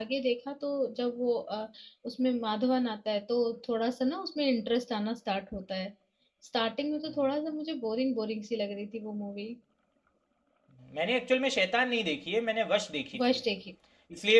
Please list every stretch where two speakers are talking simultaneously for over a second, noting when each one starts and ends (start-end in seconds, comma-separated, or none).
none